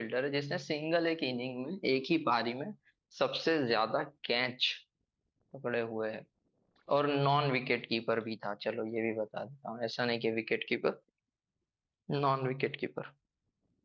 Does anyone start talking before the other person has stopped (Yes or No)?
No